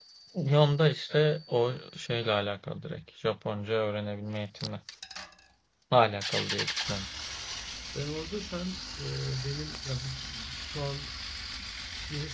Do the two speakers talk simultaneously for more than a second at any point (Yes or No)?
No